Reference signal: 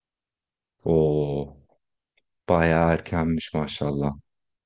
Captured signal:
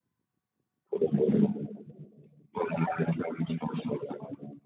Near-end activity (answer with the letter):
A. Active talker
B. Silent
A